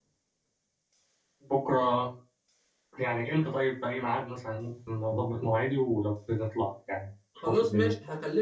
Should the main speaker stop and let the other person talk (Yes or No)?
Yes